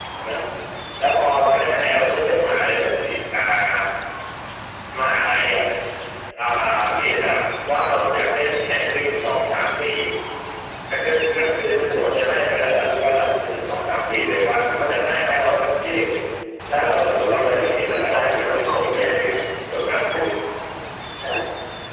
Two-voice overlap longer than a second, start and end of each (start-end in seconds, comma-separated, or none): 16.7-19.1